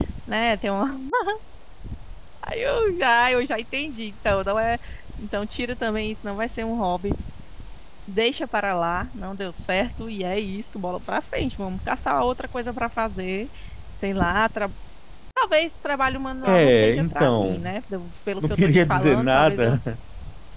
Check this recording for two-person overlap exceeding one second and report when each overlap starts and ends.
16.4-17.7, 18.4-19.8

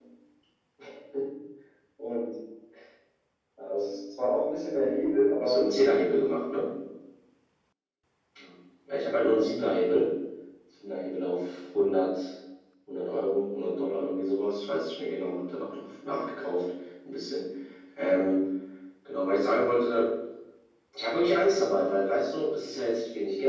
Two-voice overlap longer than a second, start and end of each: none

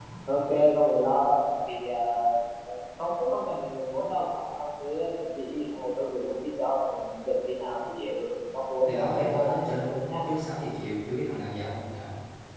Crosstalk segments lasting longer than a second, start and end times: 8.9-10.1

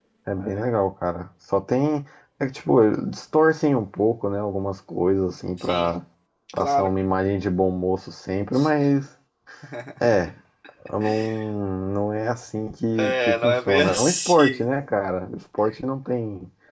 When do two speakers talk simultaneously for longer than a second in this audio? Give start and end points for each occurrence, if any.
13.0-14.7

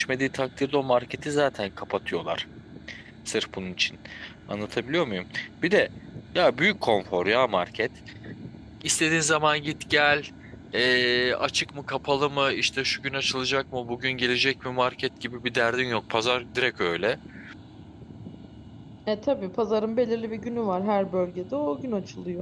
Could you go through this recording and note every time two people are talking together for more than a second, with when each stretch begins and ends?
none

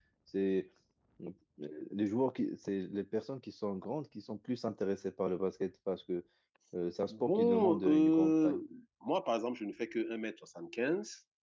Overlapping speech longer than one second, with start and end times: 7.3-8.6

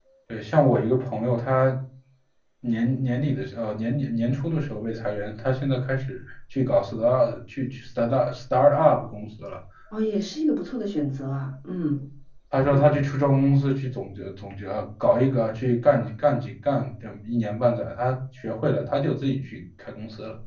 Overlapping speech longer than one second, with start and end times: none

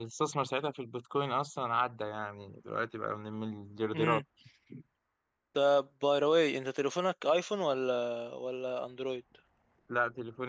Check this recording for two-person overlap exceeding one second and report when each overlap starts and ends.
none

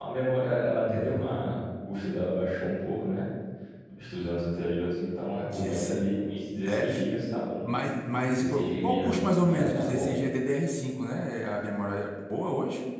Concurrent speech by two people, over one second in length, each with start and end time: 8.3-10.1

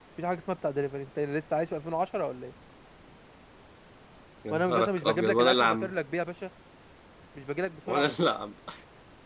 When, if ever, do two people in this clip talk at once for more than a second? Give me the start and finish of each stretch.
4.5-5.9

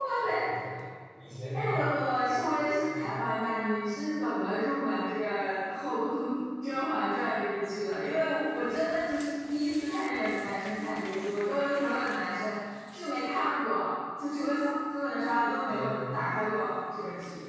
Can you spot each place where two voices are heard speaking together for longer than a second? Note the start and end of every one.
1.5-3.0

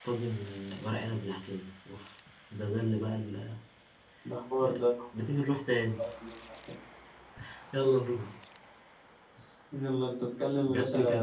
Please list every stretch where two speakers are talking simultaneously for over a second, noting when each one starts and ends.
none

